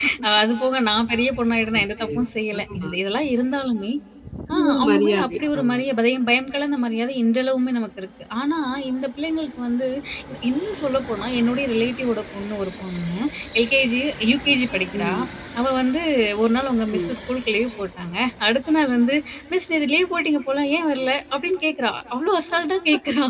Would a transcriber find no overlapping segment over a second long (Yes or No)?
No